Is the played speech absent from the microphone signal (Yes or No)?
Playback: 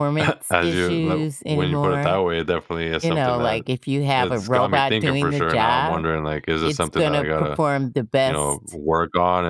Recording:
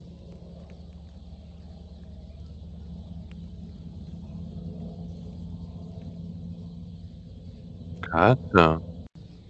Yes